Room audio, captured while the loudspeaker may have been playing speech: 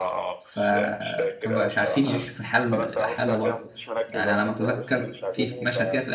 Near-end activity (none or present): present